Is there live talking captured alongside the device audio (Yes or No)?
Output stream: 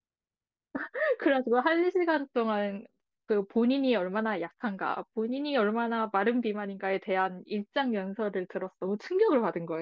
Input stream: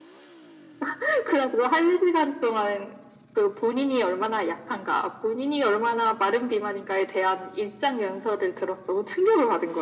No